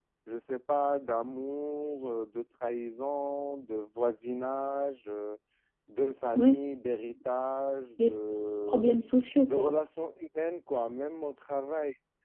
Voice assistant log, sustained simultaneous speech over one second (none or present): none